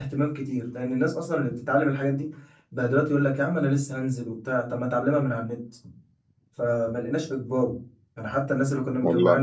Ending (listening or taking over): listening